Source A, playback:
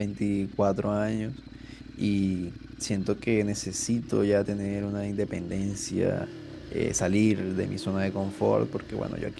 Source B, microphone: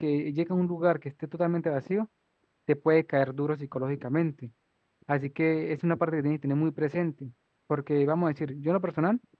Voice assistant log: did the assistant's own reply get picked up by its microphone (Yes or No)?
No